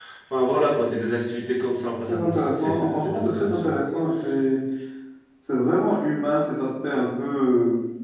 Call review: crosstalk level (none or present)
present